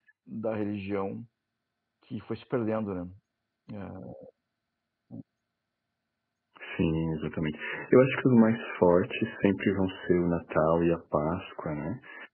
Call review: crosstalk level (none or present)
none